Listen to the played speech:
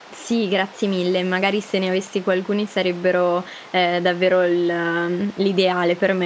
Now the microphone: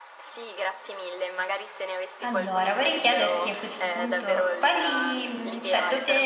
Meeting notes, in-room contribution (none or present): present